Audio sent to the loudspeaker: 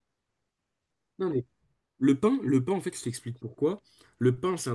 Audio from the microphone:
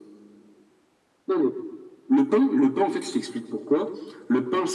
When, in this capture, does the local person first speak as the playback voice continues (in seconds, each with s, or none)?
none